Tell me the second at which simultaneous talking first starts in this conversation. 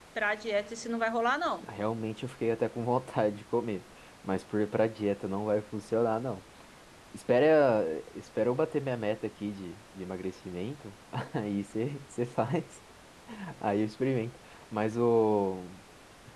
none

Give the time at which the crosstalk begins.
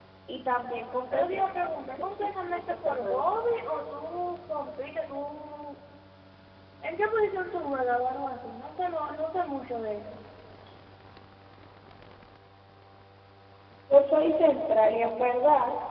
1.1 s

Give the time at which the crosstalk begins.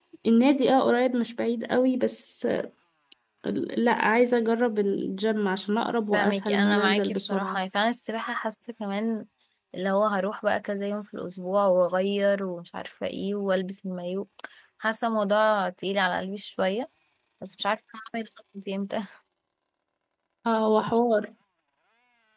6.1 s

